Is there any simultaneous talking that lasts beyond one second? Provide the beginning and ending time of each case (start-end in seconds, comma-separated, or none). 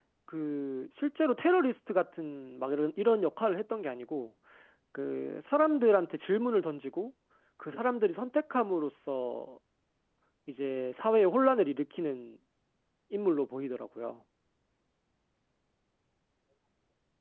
none